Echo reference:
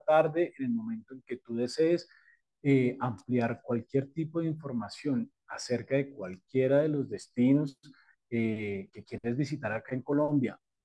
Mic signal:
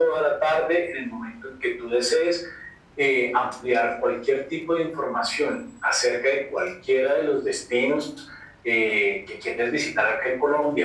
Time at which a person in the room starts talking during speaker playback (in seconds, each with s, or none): none